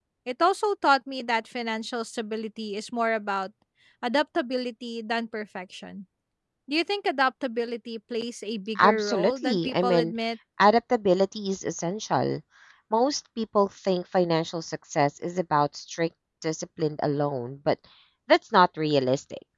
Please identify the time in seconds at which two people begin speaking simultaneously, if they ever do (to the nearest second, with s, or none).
9 s